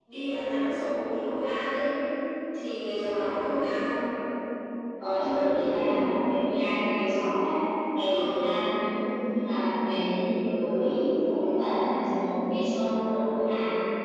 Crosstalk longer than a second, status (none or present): none